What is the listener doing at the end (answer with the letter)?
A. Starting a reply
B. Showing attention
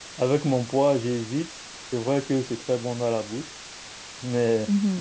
B